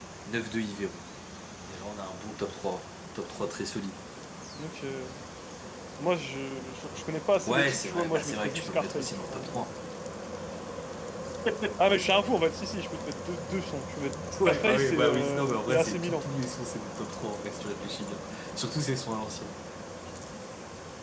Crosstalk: present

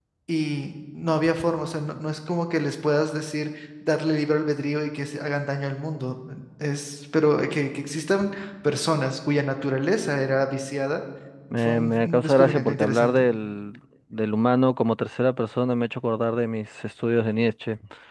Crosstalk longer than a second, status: present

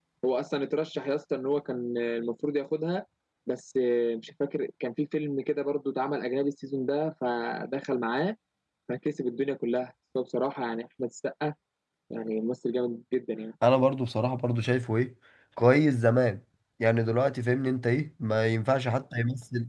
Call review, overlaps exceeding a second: none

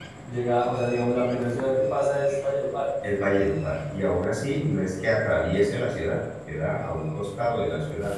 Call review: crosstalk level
none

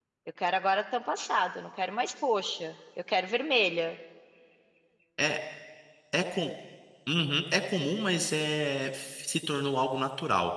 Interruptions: none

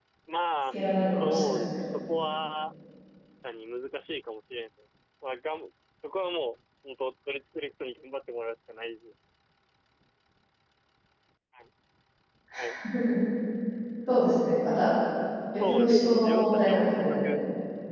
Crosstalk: present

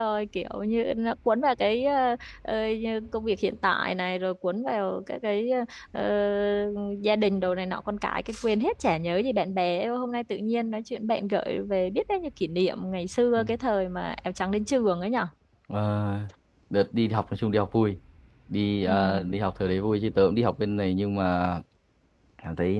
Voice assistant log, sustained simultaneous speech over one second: none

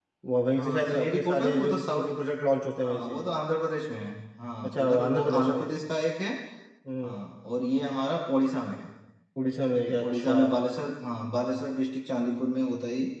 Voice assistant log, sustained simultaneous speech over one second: present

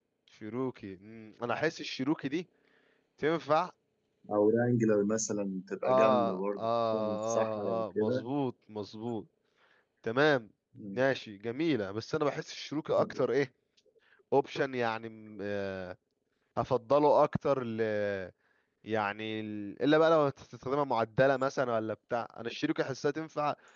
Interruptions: present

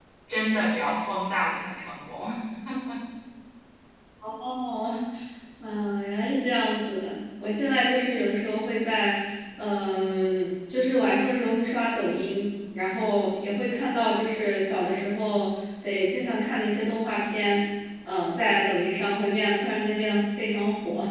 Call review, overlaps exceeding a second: none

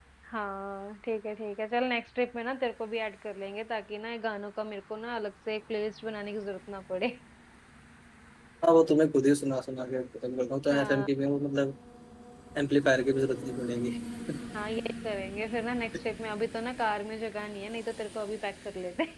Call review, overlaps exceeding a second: none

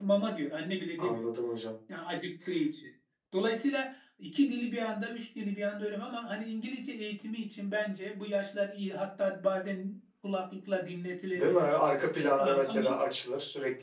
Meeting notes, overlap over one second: none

